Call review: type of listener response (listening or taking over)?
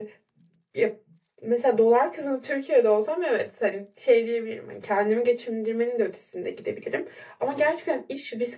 listening